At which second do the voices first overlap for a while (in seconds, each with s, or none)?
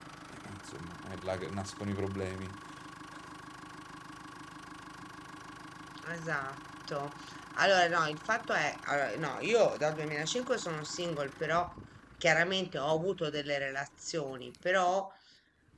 none